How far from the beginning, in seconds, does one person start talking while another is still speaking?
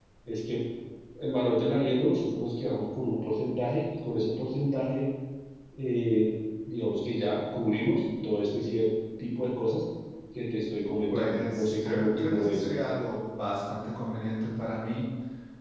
11.1 s

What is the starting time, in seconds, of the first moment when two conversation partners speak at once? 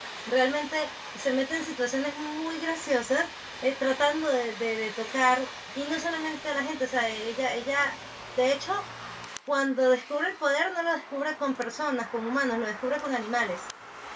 none

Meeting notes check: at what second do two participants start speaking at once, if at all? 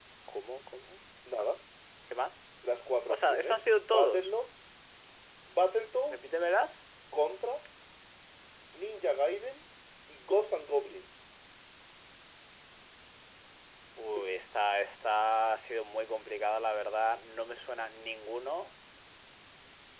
3.1 s

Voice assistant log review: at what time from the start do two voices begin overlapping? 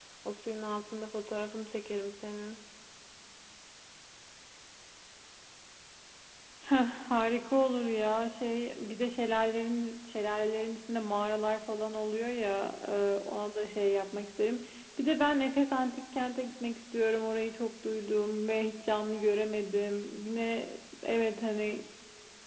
none

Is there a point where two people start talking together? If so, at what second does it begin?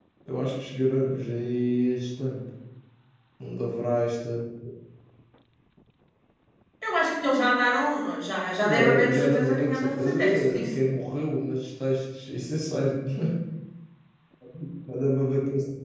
8.6 s

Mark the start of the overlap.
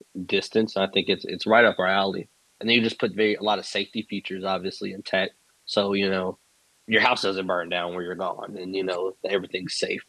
none

